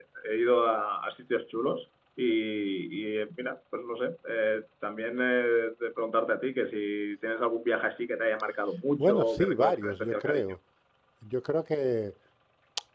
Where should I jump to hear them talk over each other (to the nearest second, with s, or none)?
9 s